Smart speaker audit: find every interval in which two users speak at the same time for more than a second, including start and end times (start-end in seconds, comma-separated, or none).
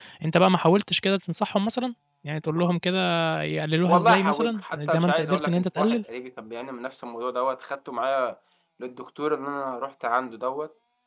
3.9-6.0